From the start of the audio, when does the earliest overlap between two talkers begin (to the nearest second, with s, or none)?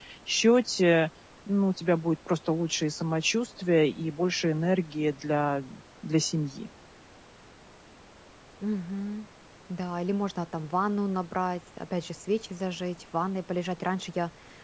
none